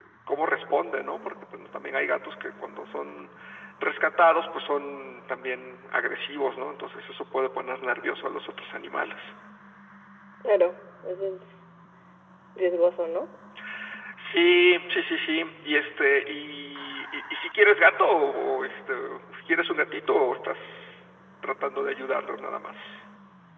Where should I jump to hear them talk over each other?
none

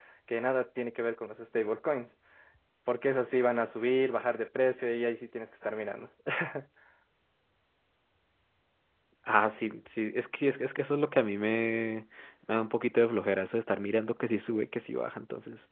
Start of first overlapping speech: none

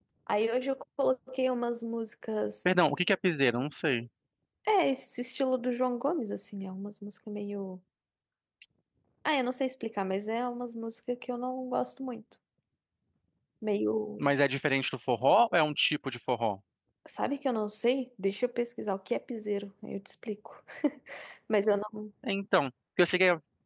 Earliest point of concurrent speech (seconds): none

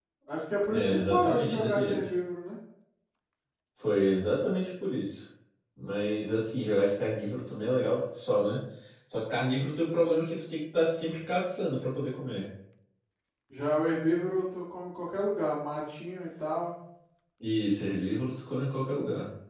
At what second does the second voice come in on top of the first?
0.7 s

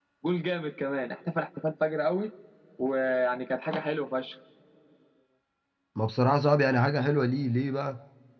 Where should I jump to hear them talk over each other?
none

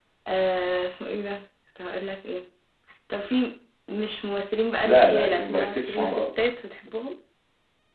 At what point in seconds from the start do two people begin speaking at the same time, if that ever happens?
4.8 s

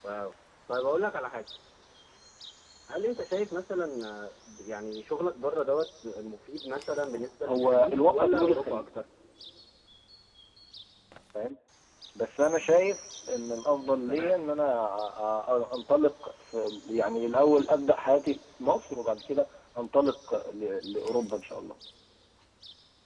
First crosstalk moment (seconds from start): 7.5 s

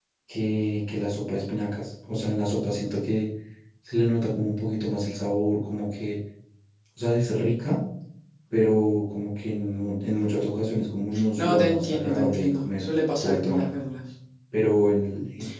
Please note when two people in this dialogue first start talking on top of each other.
11.1 s

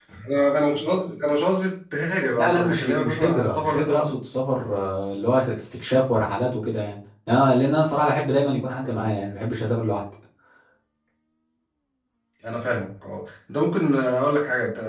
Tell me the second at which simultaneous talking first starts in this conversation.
2.3 s

